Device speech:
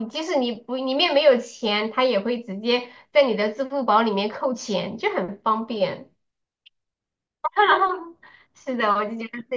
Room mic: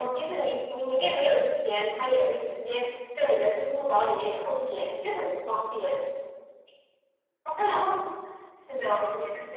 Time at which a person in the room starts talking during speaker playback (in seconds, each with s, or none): none